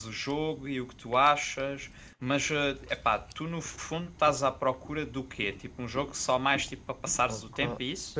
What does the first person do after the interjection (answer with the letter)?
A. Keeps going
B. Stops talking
B